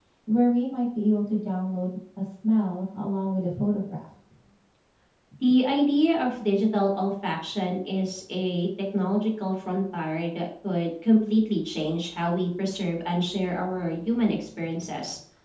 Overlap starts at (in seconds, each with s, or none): none